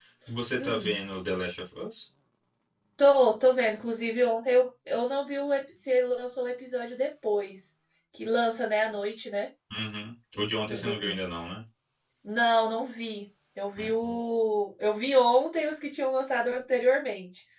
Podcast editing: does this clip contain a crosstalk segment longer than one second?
No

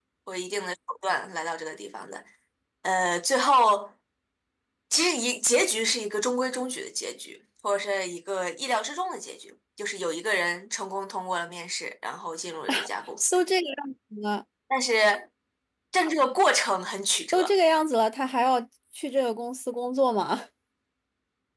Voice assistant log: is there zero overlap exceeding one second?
Yes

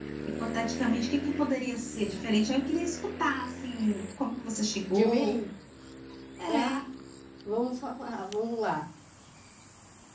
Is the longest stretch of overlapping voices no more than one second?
Yes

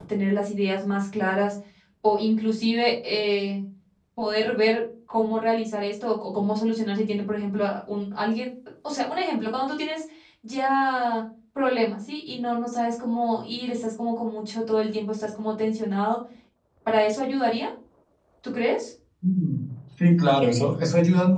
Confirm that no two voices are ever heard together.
Yes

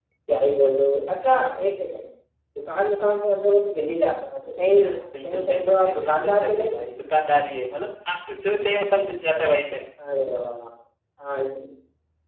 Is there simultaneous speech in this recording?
Yes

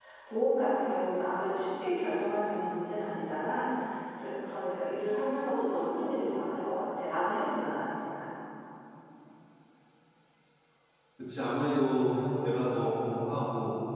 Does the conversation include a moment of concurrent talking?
No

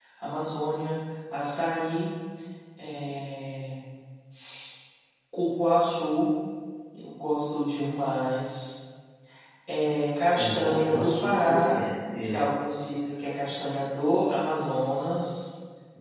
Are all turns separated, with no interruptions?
No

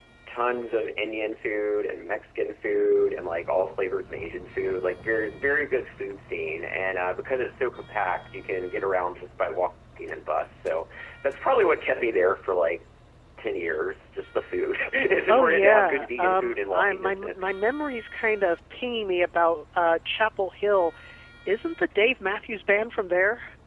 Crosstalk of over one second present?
Yes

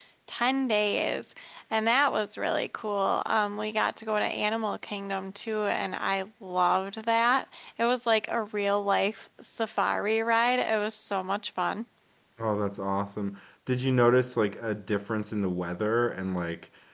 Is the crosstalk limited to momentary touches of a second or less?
Yes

